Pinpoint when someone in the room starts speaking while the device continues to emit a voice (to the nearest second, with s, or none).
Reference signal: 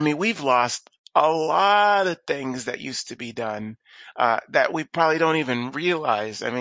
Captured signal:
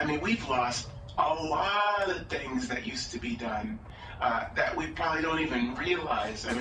none